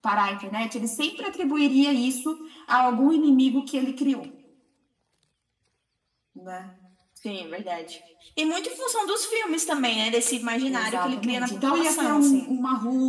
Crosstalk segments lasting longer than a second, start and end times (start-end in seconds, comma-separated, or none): 10.7-12.5